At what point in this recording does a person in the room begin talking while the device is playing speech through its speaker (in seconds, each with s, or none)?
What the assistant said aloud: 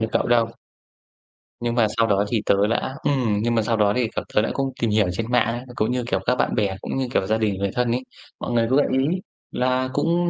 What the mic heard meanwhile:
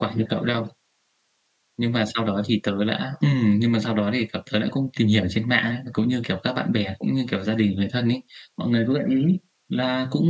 none